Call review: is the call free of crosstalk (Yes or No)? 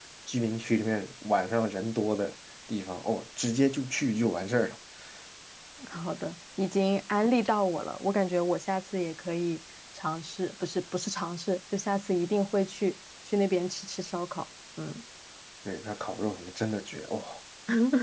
Yes